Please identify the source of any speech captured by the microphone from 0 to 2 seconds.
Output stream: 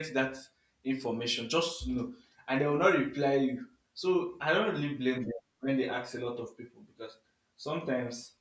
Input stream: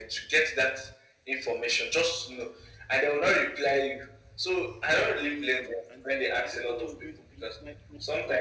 echo only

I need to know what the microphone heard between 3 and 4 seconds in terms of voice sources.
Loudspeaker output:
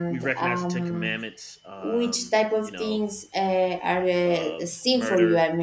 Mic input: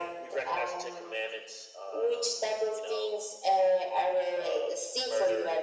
echo only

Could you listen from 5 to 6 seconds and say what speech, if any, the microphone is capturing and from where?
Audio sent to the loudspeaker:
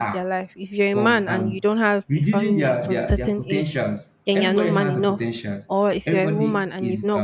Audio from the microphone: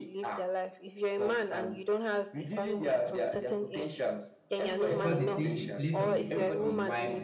both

